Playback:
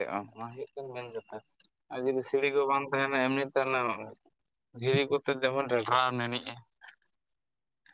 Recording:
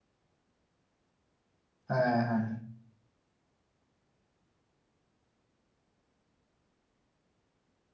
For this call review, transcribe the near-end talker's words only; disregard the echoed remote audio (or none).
ᱦᱮᱸ ᱦᱮᱸ